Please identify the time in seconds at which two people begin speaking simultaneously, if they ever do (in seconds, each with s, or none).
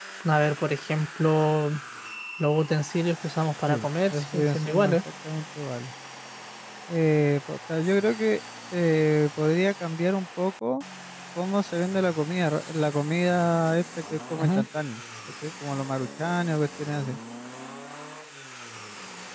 3.7 s